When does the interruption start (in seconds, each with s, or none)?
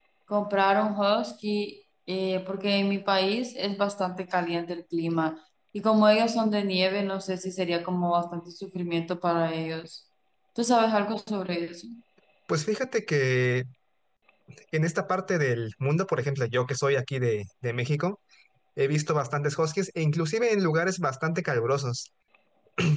none